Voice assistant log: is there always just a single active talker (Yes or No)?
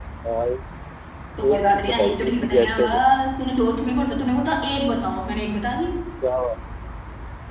No